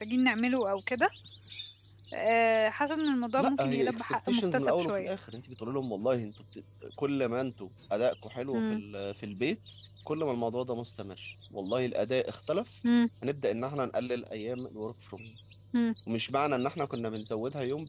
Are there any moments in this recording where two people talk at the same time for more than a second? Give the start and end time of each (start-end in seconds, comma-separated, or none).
3.4-5.1